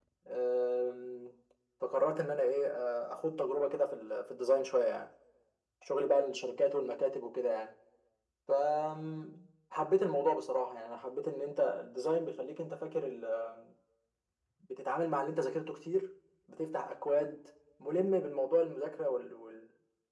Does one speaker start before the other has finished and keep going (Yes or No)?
No